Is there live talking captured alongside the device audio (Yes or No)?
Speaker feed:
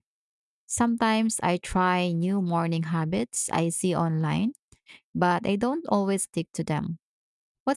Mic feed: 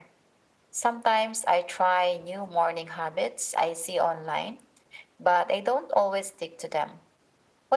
No